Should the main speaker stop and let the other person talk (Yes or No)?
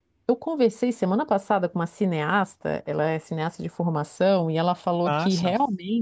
No